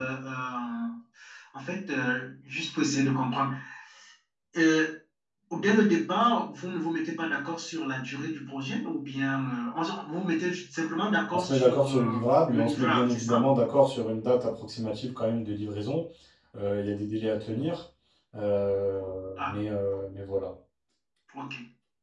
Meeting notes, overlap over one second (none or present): present